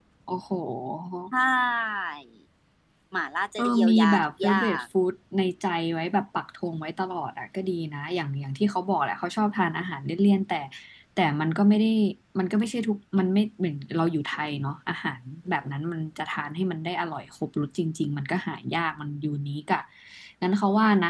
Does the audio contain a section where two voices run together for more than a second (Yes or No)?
Yes